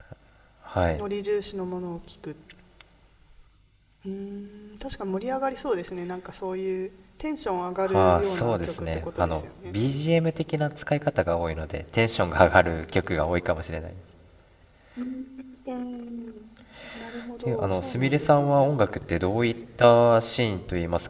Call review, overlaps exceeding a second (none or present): present